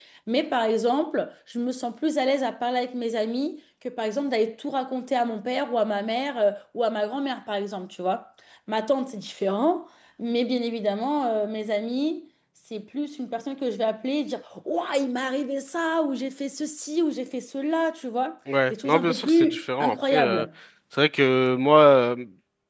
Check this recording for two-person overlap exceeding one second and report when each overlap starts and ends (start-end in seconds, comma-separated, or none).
18.7-20.4